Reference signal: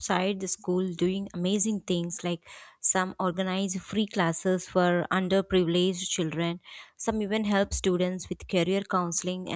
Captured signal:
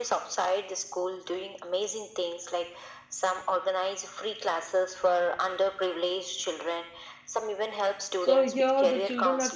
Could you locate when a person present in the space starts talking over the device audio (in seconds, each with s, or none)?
8.2 s